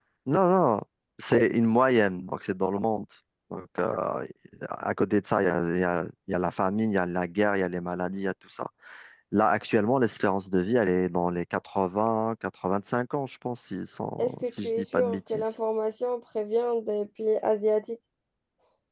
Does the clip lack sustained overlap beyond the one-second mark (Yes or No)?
No